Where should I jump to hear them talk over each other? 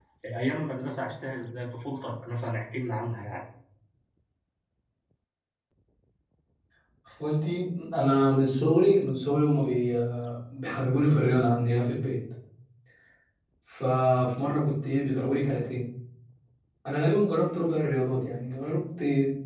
none

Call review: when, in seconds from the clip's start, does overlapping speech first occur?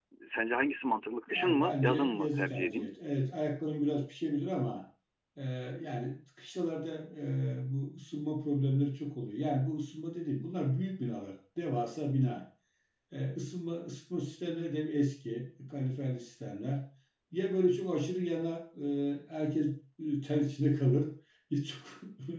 1 s

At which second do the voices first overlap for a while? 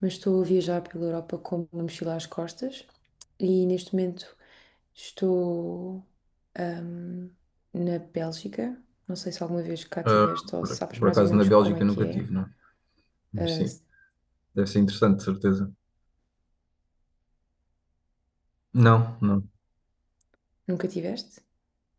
10 s

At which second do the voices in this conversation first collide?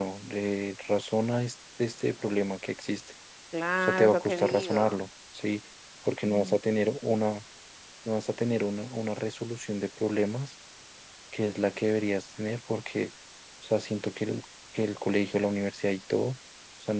4 s

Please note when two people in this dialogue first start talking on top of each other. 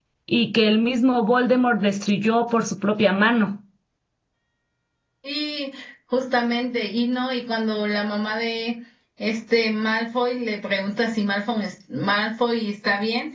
none

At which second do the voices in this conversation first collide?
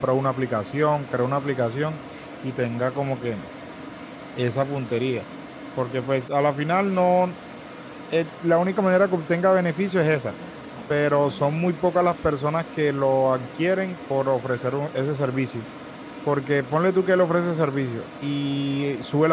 none

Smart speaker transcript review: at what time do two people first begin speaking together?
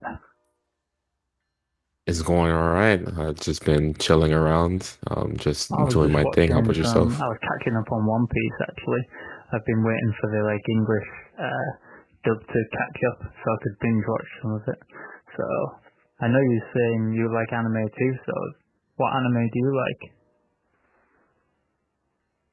6 s

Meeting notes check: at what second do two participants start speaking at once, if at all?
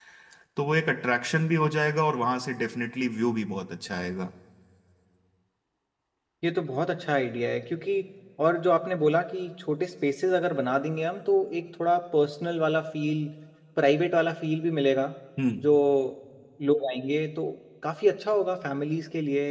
none

